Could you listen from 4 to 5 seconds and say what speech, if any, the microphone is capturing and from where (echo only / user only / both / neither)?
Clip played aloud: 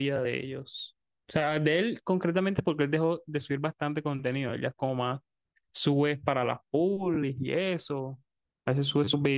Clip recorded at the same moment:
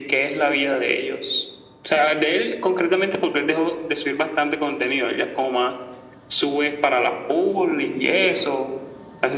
echo only